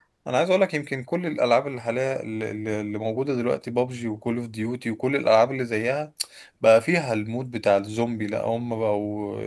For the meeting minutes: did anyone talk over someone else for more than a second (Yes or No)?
No